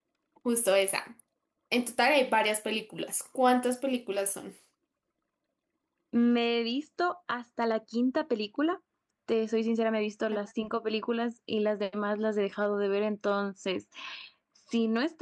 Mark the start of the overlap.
none

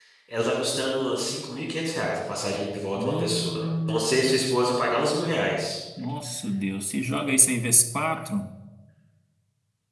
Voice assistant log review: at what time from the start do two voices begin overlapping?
3 s

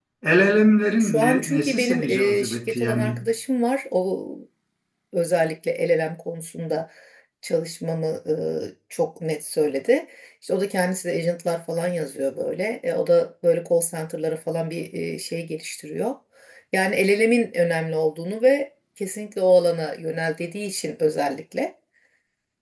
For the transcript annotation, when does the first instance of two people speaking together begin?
1 s

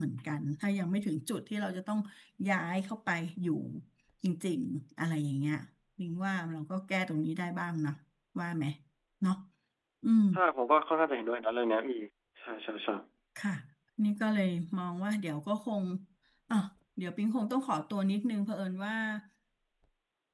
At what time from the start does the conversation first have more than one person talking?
none

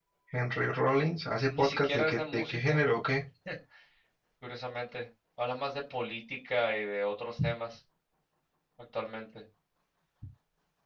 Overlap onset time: 2 s

